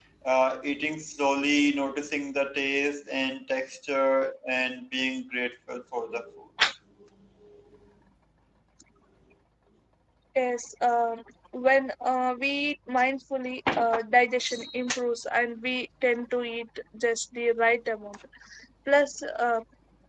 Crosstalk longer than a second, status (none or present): none